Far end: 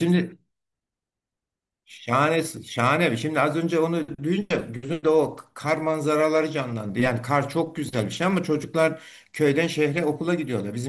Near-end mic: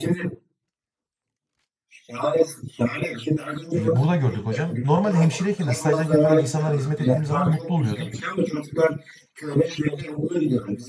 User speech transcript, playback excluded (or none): e, burada gördük hocam. Normalde hemşireyken de stajdayken falan insanlara hizmet ettiğim zaman mutlu oluyordum.